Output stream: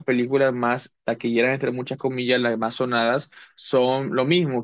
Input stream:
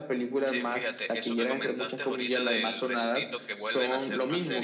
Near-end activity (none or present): present